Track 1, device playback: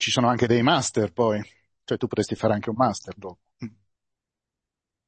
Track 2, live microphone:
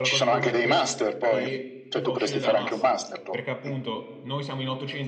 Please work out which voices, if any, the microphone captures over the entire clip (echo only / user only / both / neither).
both